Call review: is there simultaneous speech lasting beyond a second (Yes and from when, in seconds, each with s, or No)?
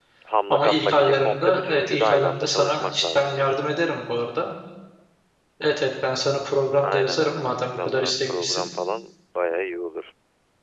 Yes, from 0.5 s